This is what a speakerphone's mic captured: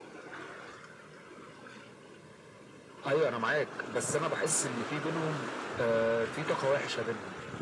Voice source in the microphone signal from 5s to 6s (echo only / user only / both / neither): echo only